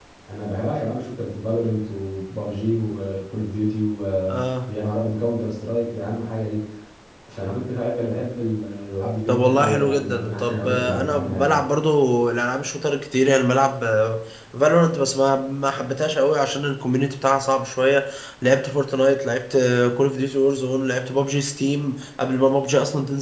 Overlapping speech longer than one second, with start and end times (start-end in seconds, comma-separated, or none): 9.3-11.6